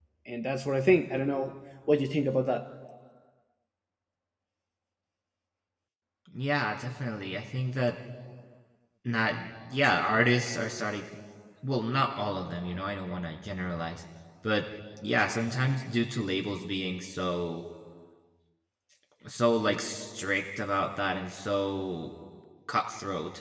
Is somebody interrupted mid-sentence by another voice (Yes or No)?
No